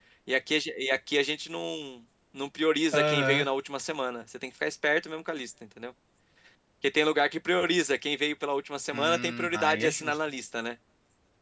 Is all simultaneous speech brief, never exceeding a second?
No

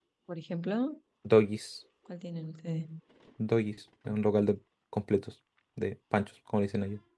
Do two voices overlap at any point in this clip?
No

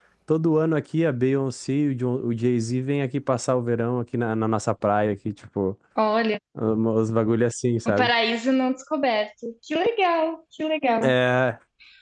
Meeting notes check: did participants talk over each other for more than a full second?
No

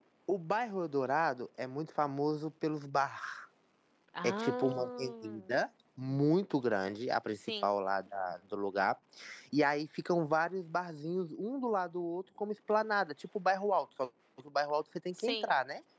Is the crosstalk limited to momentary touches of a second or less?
No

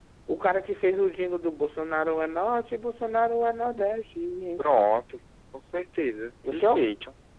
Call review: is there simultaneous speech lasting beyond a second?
No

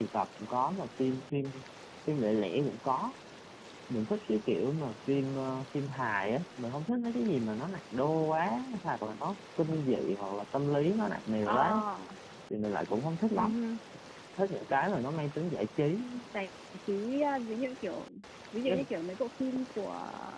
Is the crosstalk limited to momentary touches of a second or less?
Yes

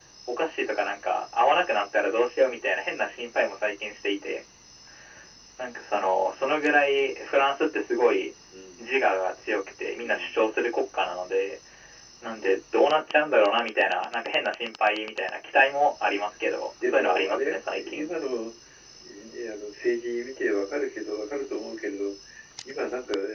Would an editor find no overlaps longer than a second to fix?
No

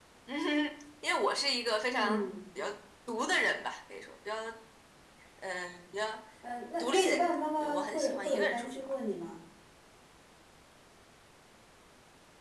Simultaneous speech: Yes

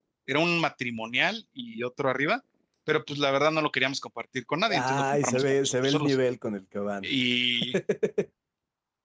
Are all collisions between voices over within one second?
No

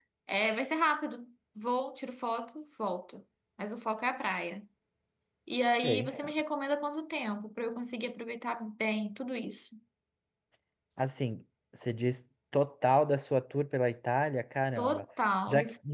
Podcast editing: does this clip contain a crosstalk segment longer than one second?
No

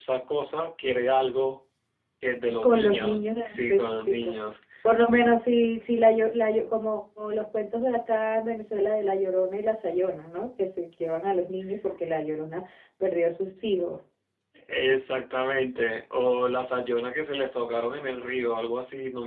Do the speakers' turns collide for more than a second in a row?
Yes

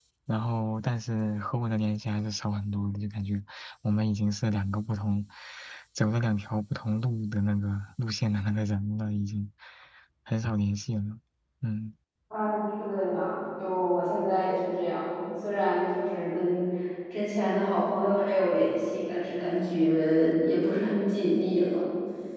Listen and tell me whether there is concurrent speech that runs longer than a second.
No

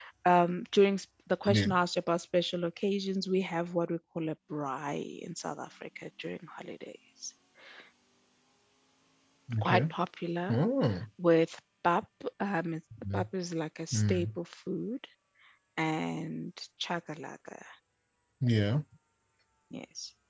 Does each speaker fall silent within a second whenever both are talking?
Yes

